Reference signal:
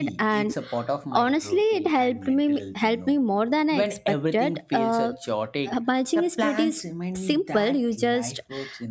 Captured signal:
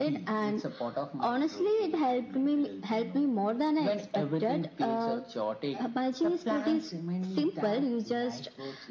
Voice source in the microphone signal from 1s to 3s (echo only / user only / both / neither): echo only